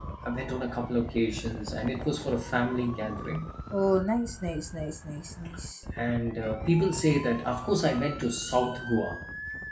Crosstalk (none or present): none